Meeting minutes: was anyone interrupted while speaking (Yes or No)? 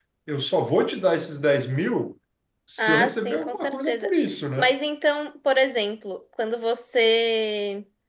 Yes